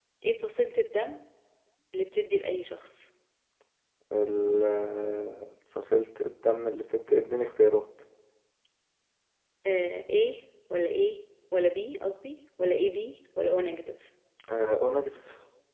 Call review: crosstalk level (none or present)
none